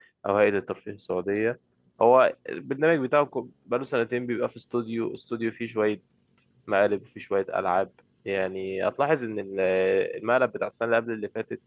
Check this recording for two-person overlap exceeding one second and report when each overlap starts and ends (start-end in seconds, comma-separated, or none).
none